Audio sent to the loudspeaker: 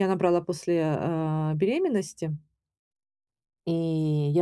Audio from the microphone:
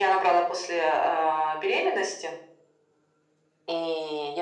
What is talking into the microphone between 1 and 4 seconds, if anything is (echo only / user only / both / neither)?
echo only